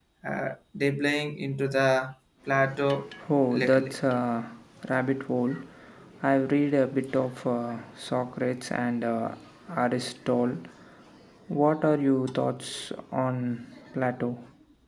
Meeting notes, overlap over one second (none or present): none